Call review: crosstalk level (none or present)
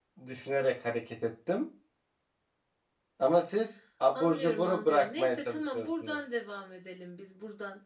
present